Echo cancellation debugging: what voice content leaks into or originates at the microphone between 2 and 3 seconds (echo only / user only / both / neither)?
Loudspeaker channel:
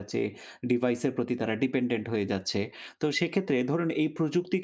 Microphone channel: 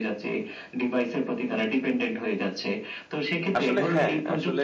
echo only